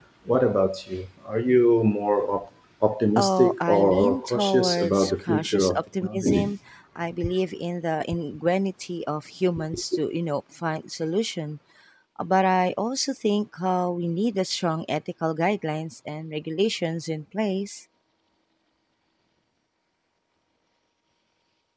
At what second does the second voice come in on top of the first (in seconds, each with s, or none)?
3.2 s